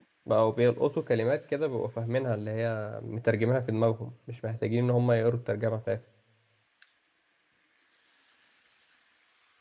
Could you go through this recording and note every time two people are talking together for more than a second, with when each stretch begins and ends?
none

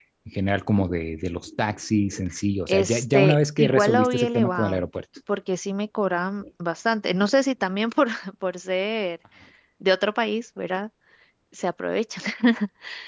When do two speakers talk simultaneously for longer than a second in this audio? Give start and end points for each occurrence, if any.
2.7-4.8

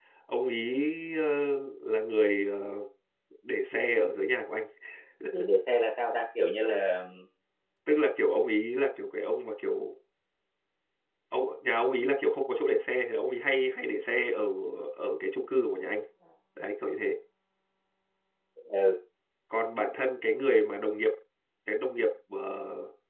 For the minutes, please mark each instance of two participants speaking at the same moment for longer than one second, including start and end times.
none

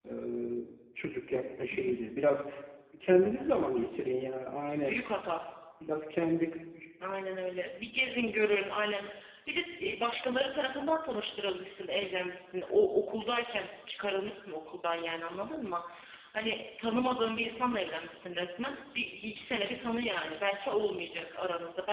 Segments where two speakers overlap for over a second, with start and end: none

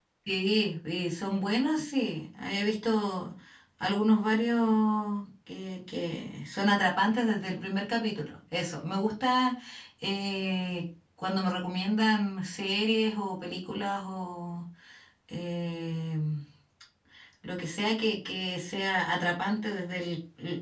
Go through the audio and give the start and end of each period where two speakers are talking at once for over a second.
none

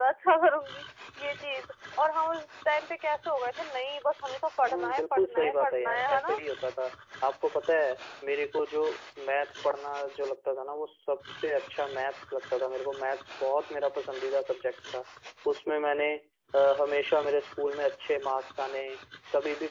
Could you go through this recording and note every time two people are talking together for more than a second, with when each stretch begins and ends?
4.6-6.4

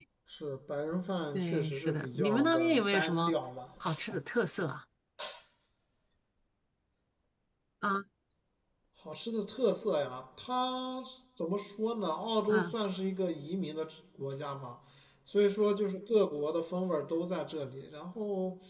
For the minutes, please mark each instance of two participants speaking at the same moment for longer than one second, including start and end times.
1.3-3.4

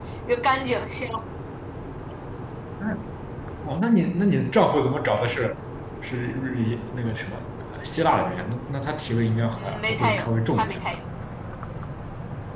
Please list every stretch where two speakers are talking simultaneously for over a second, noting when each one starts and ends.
9.6-10.8

